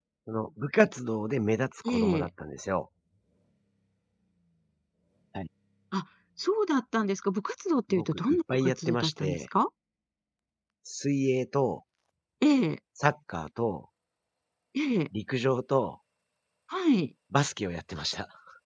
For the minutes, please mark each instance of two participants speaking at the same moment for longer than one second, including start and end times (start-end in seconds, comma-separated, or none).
7.9-9.4